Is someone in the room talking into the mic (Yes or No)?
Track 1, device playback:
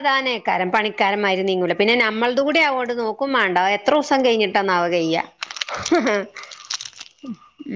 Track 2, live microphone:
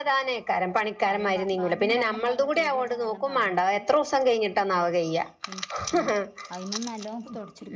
Yes